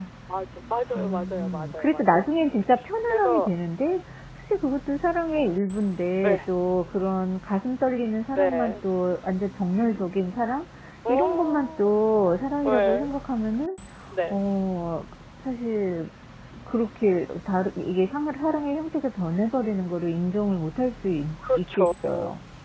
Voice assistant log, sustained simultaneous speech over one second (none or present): present